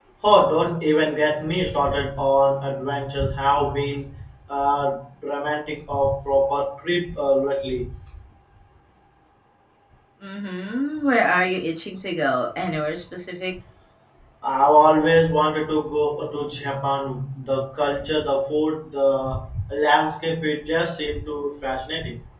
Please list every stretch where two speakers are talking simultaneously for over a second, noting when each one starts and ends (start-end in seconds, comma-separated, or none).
none